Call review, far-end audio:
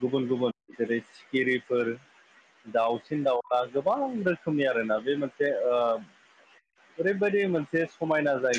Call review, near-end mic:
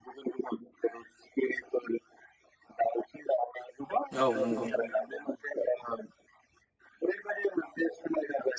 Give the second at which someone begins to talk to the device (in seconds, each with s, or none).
4.2 s